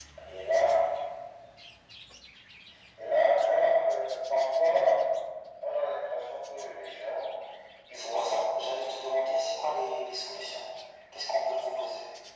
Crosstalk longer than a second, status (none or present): present